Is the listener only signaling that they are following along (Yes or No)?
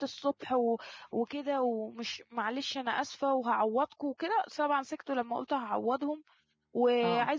Yes